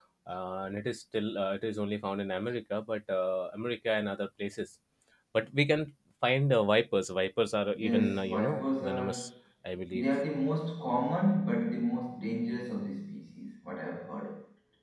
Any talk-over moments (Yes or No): Yes